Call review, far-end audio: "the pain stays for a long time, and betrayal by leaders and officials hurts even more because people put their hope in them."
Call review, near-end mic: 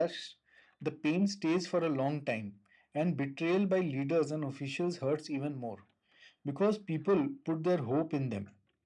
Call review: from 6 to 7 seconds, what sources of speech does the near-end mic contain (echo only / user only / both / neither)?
echo only